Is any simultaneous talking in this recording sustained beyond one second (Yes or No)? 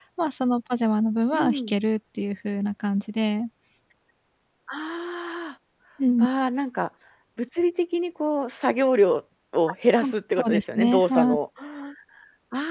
Yes